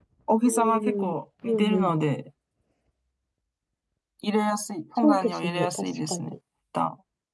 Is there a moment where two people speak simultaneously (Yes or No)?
Yes